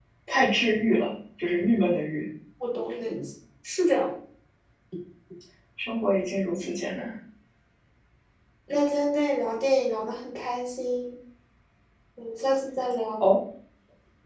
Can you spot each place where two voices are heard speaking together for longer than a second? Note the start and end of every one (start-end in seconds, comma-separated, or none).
none